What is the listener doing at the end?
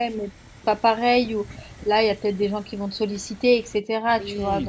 taking over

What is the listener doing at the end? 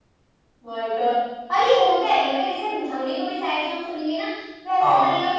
listening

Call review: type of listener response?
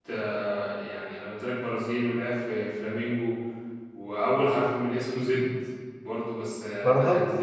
listening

